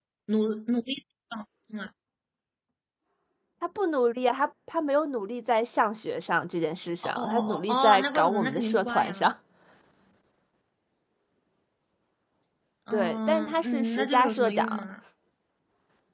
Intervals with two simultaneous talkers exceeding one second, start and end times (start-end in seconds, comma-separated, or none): 7.0-9.3, 12.9-14.6